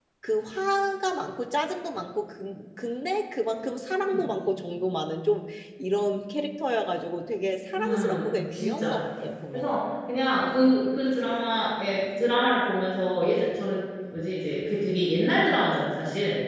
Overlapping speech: Yes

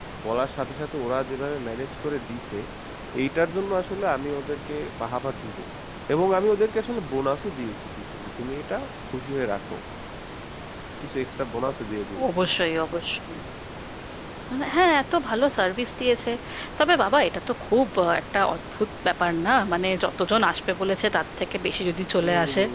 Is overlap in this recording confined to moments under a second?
Yes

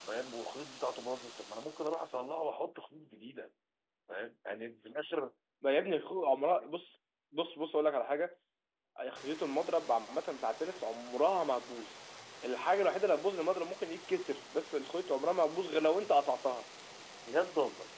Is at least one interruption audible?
No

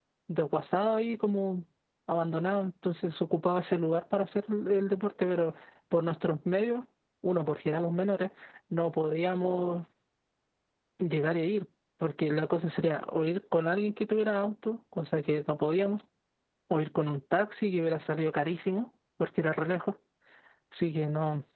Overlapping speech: No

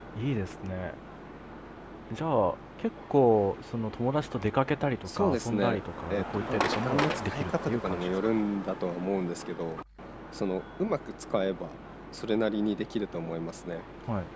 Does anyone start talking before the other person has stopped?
Yes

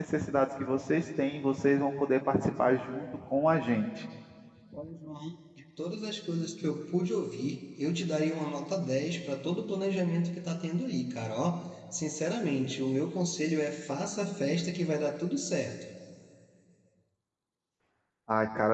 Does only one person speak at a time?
Yes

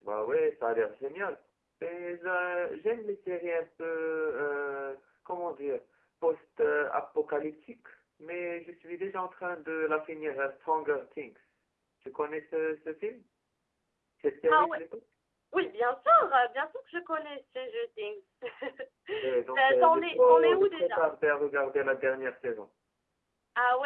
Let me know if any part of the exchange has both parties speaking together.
Yes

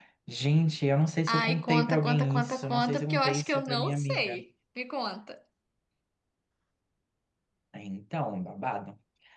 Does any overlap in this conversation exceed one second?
Yes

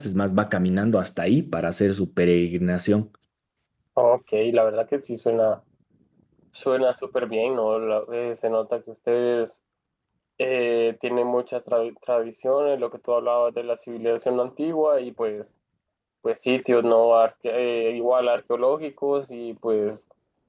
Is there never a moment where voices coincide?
Yes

